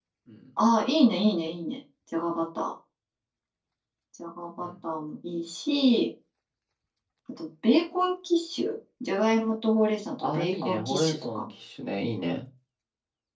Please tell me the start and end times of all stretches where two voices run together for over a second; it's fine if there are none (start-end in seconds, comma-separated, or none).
10.2-11.5